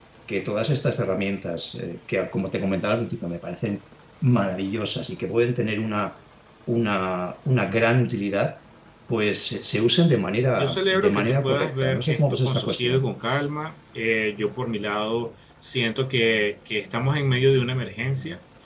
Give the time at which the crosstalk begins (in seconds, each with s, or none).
10.6 s